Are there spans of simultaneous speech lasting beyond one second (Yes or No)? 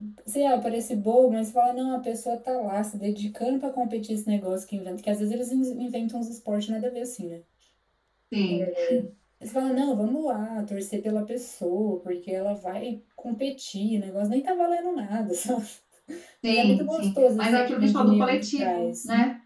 Yes